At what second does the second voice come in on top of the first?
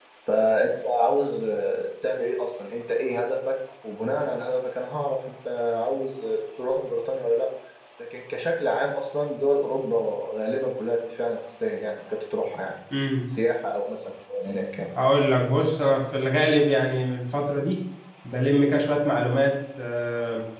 none

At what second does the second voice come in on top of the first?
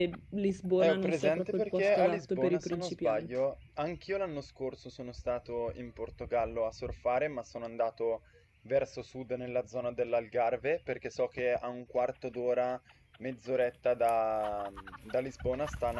0.8 s

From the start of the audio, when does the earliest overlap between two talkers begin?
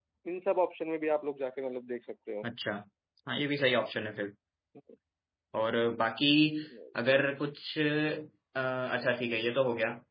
none

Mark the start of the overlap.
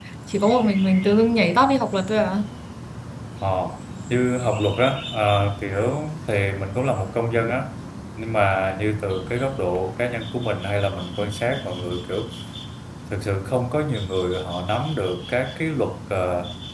none

